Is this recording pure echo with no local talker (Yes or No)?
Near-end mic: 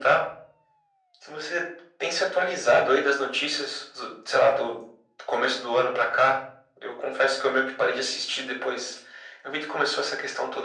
Yes